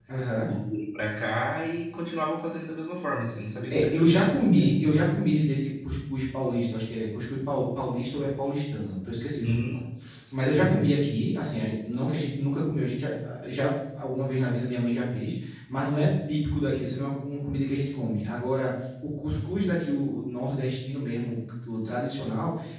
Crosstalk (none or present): present